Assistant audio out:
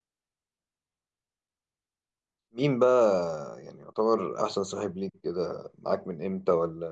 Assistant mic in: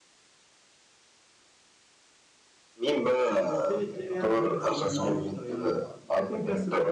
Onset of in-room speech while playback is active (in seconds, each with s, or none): 3.5 s